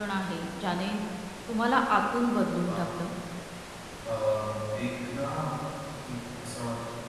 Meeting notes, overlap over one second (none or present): none